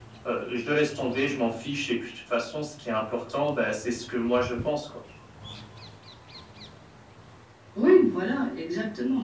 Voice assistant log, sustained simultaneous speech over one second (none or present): none